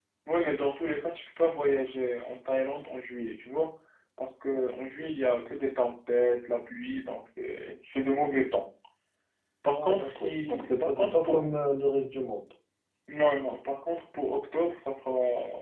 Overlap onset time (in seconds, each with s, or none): 9.7 s